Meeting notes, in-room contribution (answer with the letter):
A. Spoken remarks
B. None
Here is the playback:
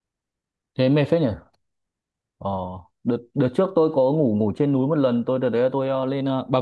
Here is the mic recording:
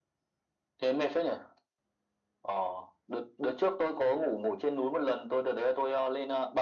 B